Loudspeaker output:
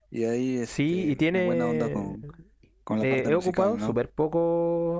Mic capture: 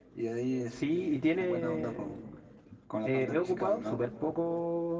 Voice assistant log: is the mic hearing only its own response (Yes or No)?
Yes